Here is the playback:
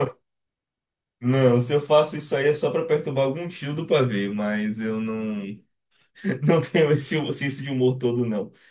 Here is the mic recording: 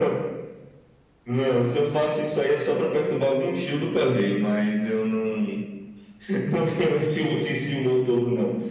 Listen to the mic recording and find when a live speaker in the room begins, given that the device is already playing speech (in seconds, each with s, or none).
none